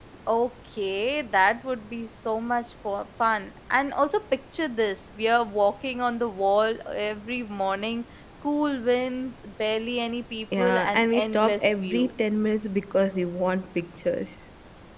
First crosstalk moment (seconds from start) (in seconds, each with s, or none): 10.5 s